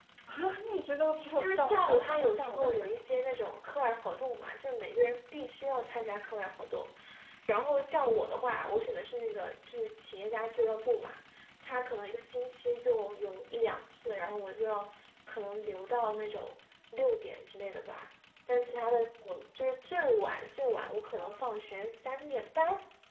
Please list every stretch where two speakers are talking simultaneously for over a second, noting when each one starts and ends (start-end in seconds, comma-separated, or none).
1.4-3.0